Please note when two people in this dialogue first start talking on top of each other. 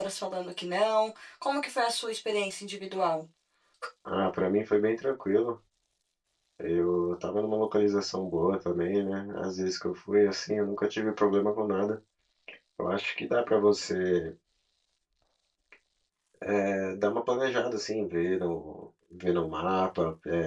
none

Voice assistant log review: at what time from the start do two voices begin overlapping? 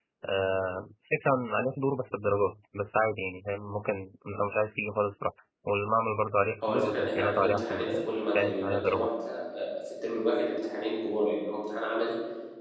6.6 s

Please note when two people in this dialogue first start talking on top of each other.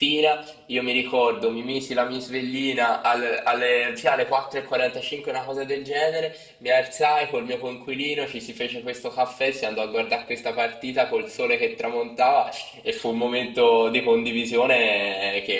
none

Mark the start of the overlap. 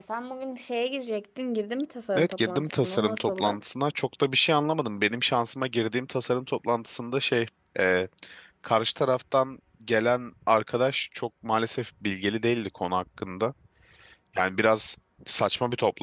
2.1 s

